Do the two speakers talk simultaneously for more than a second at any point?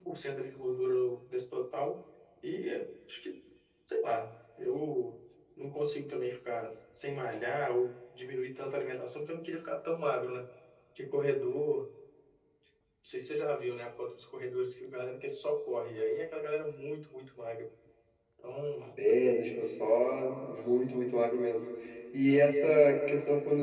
No

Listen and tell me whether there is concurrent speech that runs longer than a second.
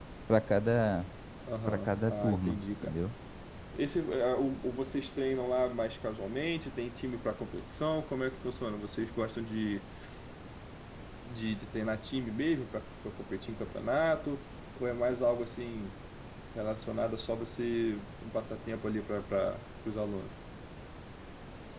Yes, from 1.7 s

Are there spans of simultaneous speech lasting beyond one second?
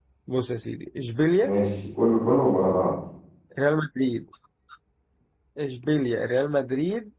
No

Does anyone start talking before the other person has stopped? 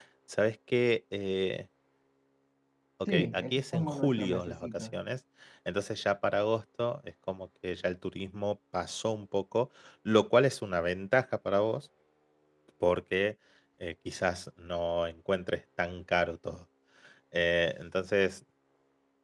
Yes, from 3.1 s

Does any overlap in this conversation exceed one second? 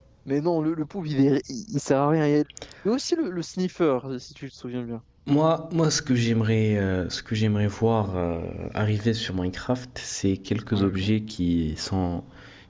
No

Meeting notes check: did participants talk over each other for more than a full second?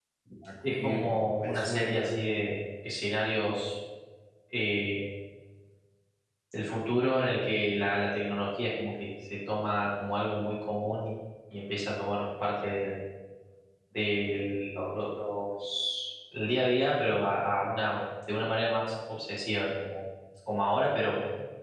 Yes, from 0.6 s

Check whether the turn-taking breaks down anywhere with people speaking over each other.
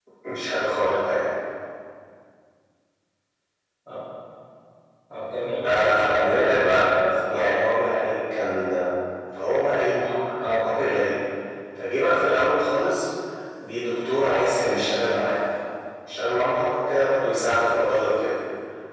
Yes, from 5.6 s

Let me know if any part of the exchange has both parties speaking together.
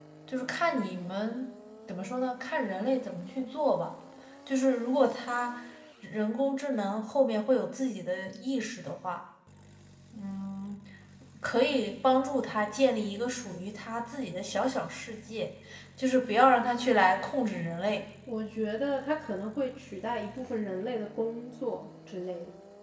No

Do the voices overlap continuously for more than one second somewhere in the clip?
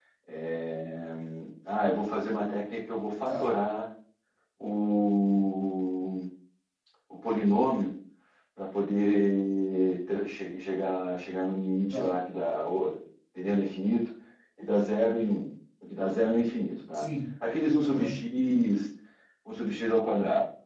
No

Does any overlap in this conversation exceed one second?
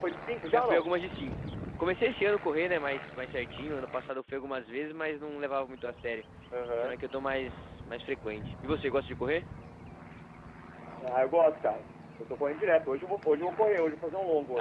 No

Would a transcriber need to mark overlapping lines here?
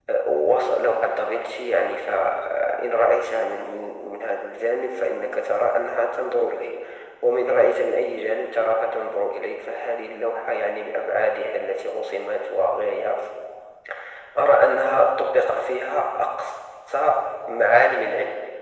No

